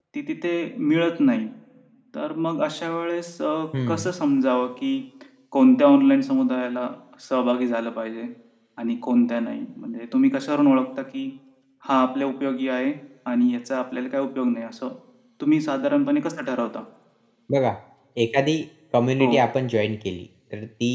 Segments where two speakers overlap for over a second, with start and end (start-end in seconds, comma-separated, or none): none